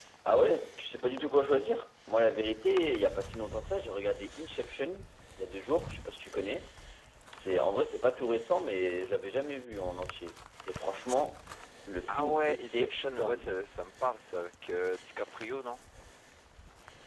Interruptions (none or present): present